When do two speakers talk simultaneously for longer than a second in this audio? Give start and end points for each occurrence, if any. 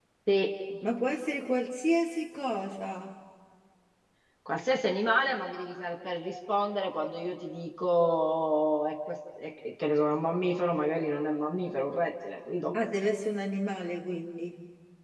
none

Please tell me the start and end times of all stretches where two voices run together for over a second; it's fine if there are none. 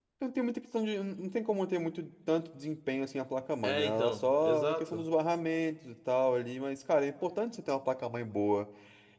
3.6-5.0

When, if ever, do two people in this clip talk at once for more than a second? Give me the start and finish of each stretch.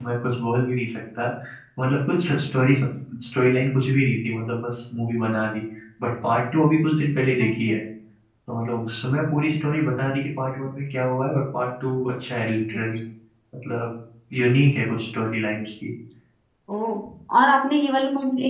none

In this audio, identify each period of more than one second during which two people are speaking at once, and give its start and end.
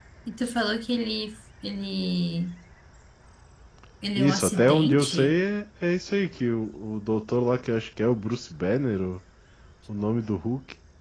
4.2-5.4

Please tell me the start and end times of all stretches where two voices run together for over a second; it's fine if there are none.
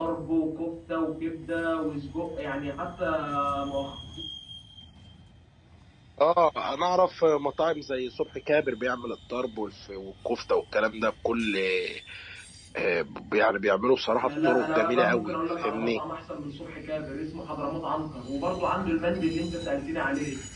14.2-16.0

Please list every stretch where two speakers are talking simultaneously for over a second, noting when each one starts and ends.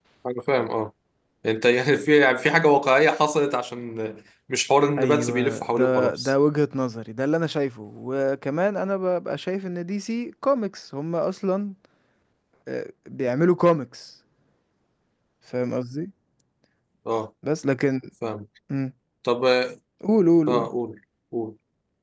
5.0-6.3

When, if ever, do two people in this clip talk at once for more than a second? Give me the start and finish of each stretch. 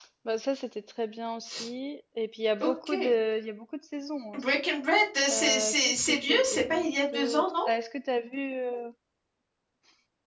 5.3-7.5

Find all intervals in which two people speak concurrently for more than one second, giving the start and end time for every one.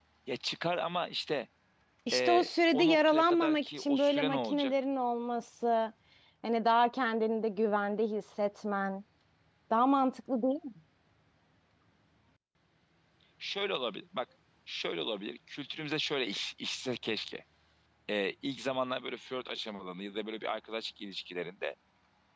2.1-4.7

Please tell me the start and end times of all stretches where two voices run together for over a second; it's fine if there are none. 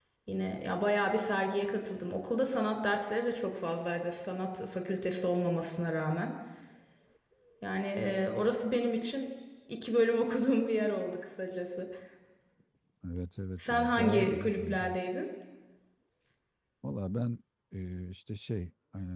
13.6-14.8

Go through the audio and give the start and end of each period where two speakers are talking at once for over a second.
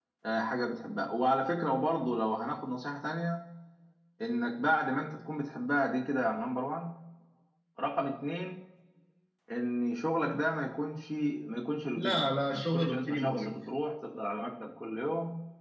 11.9-13.5

